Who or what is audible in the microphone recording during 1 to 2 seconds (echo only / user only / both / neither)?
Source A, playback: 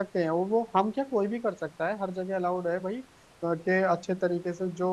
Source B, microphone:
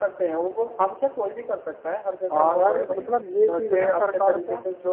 echo only